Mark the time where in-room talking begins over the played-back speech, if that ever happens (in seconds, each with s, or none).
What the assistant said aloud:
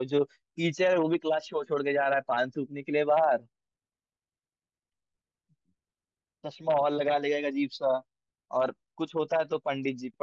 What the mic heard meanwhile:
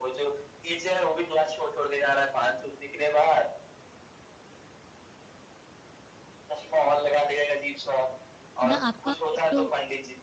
8.6 s